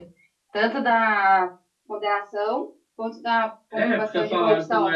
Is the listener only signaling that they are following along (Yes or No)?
No